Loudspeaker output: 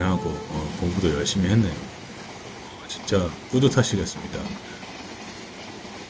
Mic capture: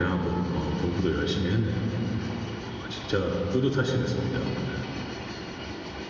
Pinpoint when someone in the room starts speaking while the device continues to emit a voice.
none

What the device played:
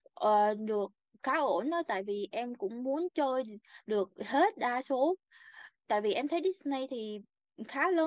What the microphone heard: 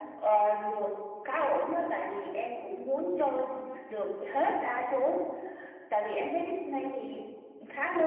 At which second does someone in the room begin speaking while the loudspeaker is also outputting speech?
none

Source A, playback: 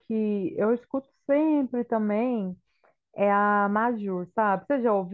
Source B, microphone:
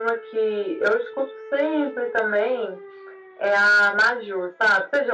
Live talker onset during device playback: none

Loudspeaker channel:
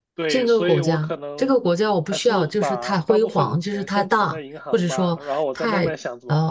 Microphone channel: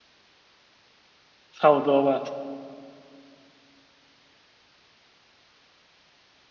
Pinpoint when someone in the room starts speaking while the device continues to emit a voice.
2 s

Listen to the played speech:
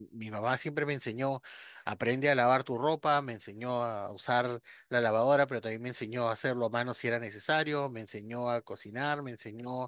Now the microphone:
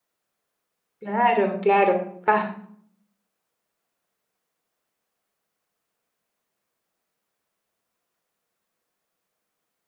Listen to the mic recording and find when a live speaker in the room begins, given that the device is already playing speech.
1 s

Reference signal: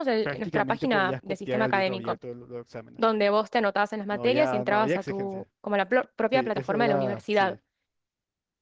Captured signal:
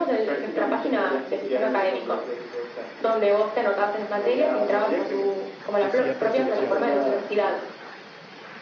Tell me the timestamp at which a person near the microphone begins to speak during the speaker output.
6 s

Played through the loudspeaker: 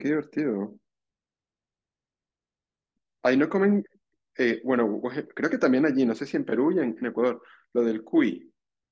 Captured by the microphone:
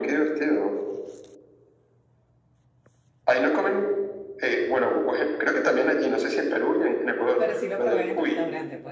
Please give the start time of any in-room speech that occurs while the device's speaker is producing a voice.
7 s

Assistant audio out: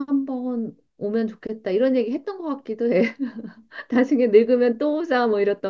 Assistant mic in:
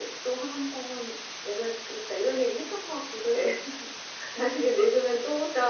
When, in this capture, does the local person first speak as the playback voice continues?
none

